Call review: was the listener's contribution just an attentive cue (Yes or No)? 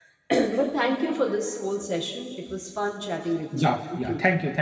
No